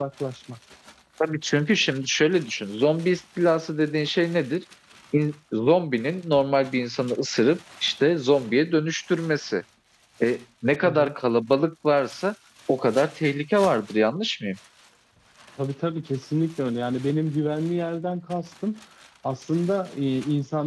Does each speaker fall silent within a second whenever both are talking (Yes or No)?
Yes